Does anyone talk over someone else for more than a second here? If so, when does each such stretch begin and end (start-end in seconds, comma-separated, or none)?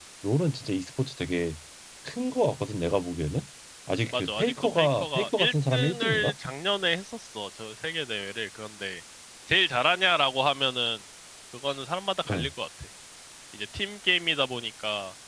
4.1-6.3